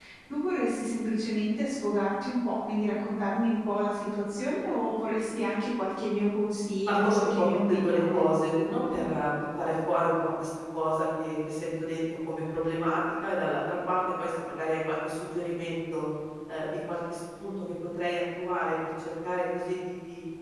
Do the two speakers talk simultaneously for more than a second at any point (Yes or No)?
Yes